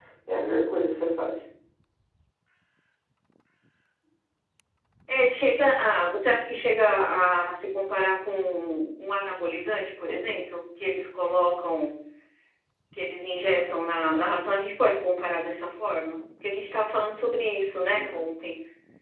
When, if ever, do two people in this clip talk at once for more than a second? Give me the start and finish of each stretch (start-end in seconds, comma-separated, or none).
none